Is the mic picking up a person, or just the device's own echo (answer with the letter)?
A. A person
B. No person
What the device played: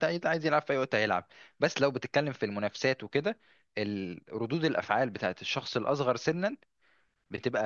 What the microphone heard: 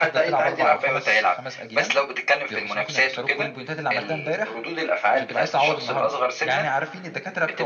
A